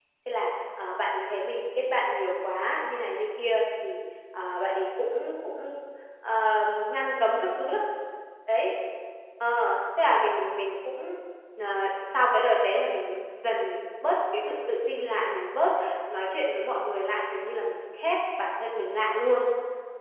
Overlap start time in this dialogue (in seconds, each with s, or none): none